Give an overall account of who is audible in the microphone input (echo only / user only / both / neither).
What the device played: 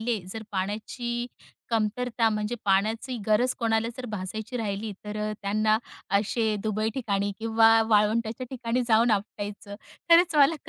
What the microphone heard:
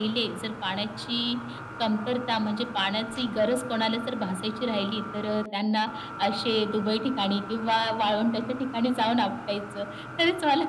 echo only